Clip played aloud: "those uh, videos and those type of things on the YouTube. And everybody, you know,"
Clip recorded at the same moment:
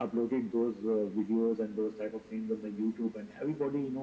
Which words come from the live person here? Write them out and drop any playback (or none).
none